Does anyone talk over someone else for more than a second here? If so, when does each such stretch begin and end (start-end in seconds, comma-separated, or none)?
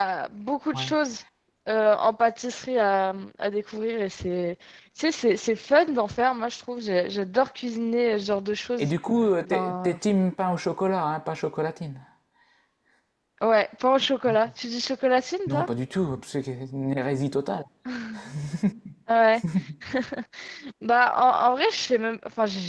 none